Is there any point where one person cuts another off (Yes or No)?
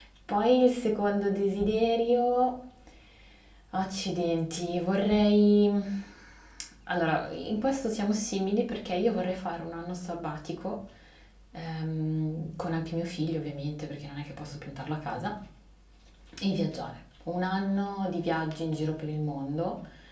No